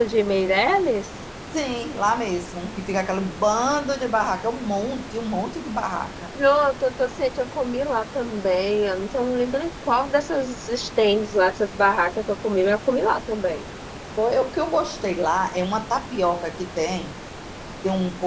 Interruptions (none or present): none